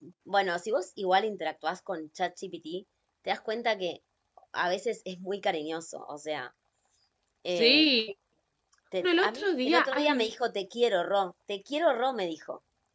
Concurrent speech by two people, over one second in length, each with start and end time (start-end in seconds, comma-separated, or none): 9.0-10.3